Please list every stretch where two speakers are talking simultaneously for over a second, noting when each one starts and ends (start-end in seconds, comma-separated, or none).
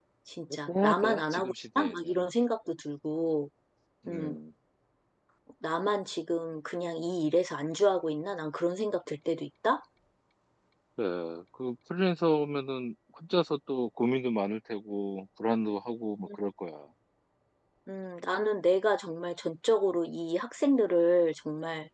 0.7-2.2